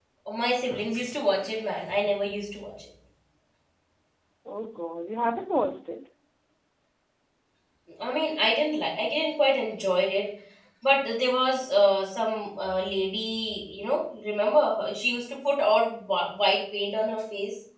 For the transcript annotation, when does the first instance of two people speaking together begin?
none

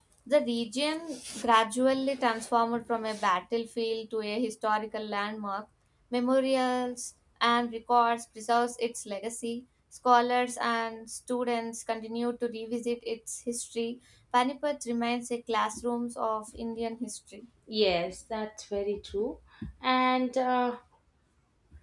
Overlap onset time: none

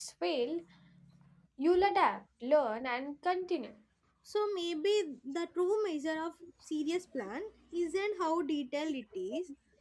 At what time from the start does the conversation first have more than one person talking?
none

